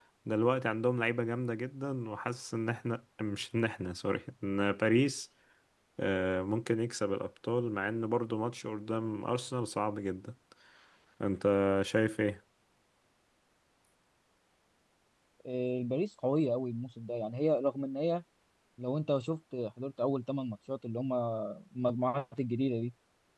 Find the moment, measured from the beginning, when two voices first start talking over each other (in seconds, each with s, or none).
none